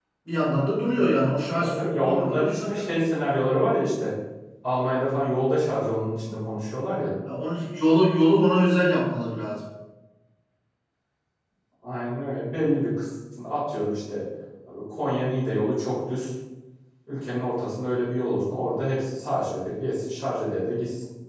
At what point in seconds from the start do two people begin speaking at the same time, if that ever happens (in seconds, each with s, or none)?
1.6 s